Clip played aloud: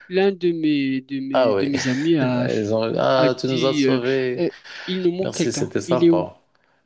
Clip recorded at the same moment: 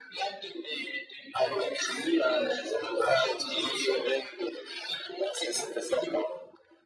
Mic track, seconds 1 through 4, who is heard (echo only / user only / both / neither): echo only